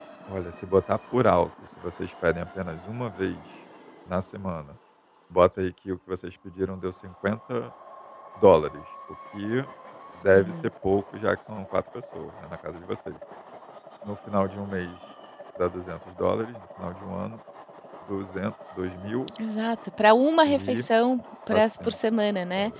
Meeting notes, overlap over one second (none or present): none